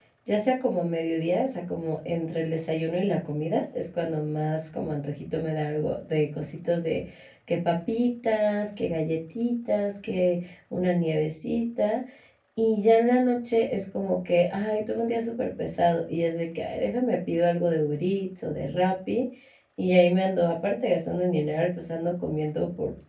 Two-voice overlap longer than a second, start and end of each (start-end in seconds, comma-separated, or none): none